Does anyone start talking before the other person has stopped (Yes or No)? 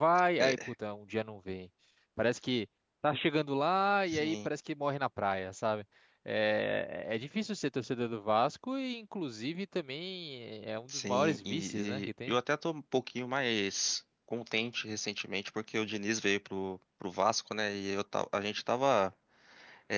Yes